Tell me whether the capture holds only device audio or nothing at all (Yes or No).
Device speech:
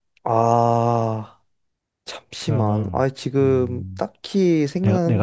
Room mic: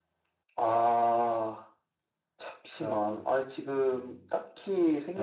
Yes